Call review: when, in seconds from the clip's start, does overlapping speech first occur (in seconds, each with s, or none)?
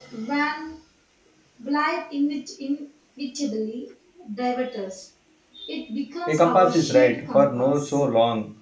6.3 s